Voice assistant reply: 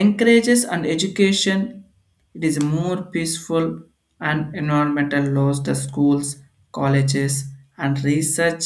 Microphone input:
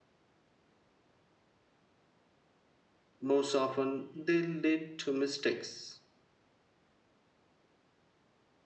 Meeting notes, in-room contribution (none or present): present